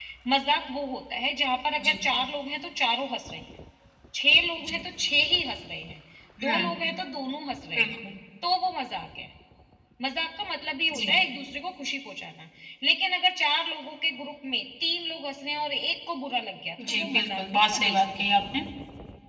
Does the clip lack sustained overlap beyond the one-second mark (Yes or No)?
No